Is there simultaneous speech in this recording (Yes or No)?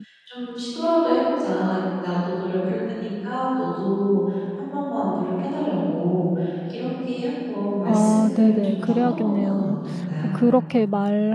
Yes